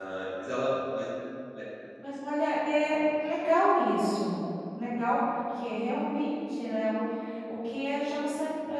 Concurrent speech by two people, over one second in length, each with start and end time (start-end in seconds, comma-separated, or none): none